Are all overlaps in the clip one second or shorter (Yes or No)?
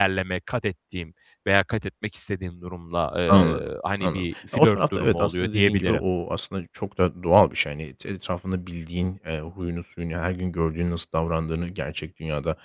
No